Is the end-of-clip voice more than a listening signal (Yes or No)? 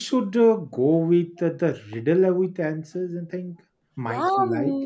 Yes